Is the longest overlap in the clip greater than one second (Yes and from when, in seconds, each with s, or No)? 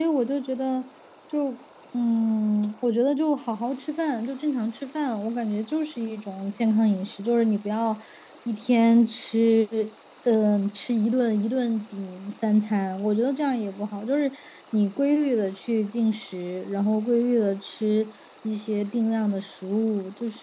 No